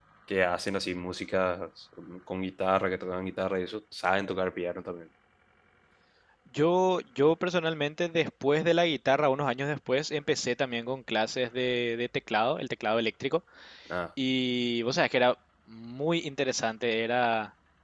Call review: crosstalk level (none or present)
none